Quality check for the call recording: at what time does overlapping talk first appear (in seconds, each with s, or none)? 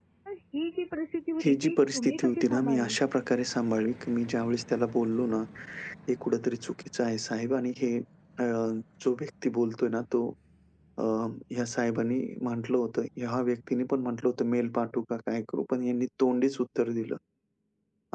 1.4 s